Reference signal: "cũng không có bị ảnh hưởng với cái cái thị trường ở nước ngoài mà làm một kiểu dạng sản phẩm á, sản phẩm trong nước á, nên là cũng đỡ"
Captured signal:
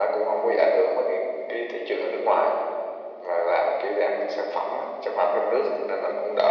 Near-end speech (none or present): none